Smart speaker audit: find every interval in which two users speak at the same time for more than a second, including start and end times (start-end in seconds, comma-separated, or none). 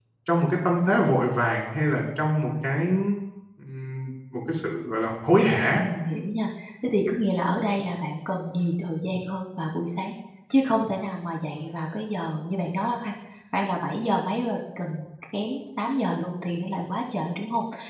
none